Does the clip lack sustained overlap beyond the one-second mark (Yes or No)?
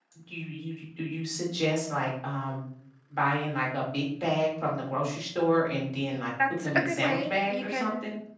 No